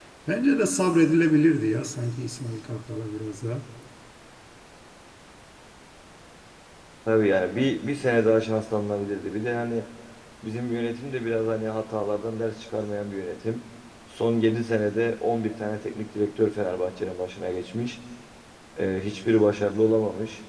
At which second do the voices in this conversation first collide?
none

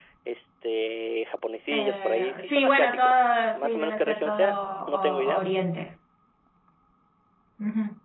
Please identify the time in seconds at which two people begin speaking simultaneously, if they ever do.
1.7 s

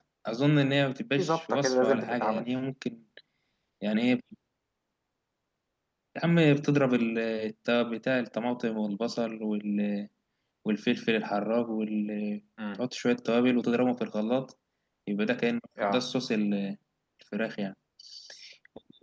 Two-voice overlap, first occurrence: 1.2 s

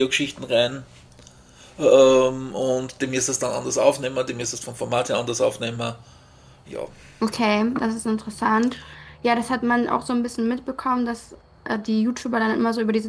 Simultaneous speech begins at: none

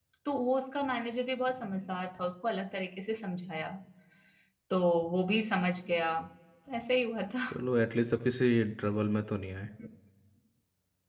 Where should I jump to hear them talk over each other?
none

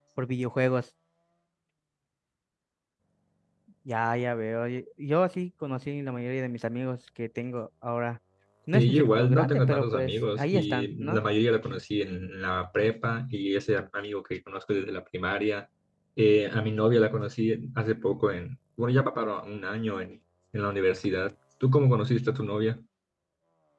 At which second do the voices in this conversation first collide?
8.7 s

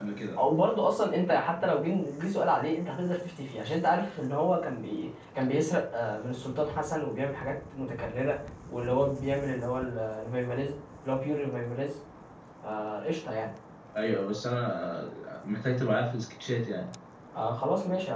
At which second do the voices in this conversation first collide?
none

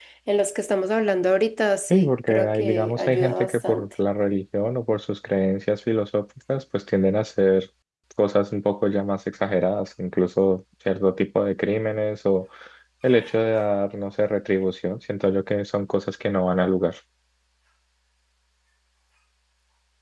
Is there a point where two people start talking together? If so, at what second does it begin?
1.9 s

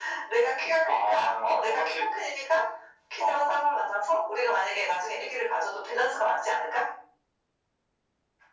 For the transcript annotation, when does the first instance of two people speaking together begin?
0.8 s

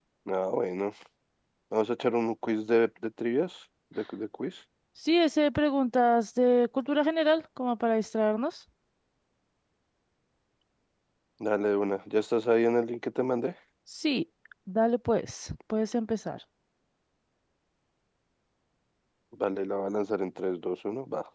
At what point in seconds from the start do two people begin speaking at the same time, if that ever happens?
none

